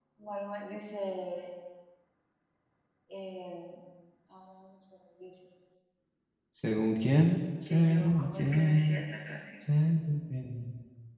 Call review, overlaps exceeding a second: present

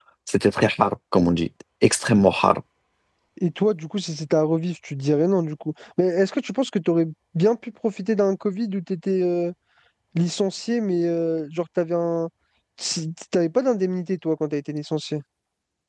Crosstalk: none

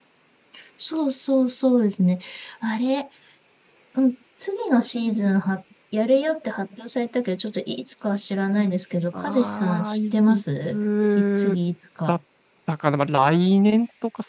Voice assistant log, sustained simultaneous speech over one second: present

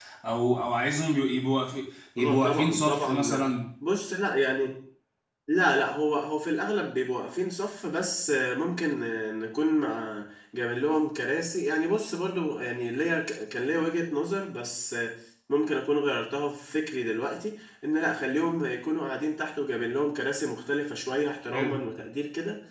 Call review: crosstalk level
present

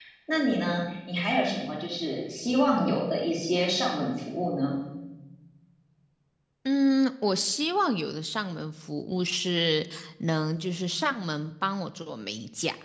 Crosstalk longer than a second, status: none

